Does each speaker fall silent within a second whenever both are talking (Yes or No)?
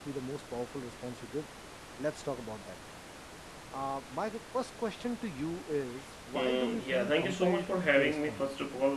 No